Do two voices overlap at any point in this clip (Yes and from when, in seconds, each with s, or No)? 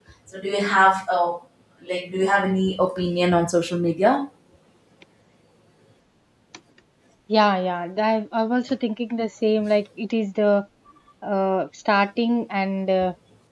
No